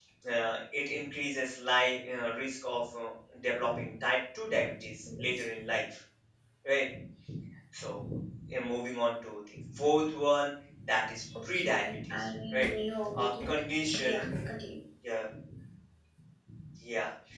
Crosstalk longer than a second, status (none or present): present